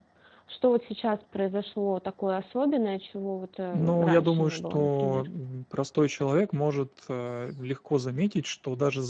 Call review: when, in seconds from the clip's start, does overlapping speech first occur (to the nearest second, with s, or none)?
4 s